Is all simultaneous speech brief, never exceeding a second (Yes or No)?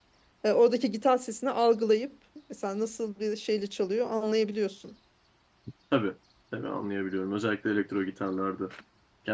Yes